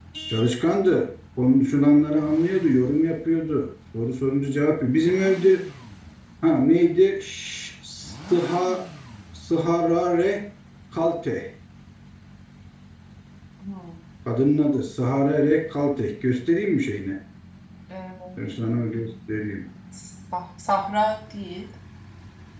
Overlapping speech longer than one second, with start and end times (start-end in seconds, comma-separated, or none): none